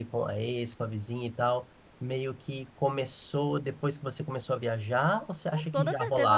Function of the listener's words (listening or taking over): taking over